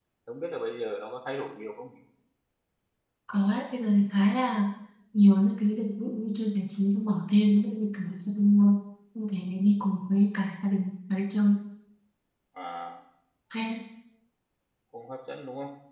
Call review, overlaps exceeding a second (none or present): none